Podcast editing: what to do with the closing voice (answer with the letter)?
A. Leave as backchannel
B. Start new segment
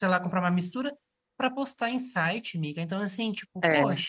A